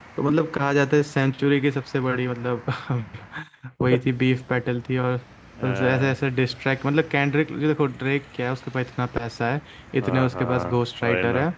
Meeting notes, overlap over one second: present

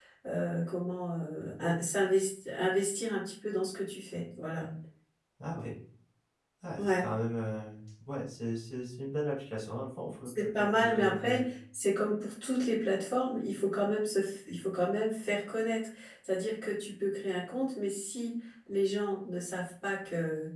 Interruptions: present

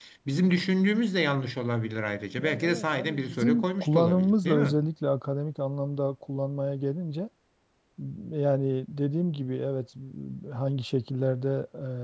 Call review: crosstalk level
present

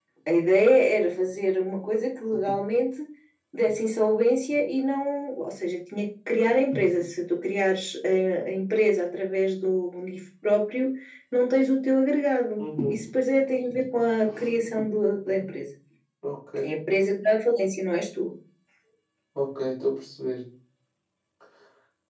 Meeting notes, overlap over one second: none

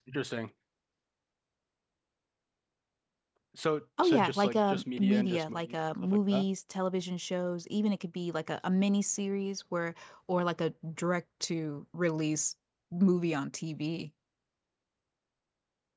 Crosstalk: present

